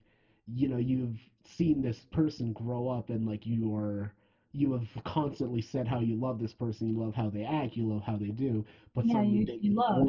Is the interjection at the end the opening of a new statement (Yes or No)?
Yes